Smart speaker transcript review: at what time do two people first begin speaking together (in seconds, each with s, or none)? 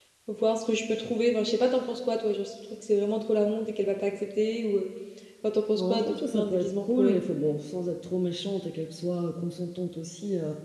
5.7 s